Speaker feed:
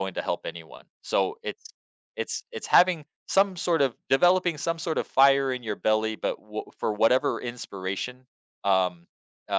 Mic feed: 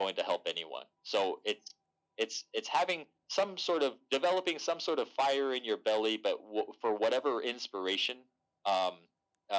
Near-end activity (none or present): none